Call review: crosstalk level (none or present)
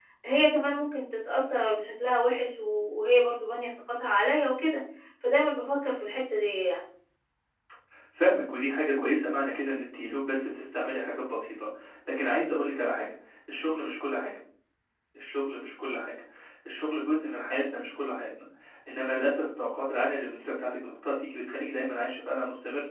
none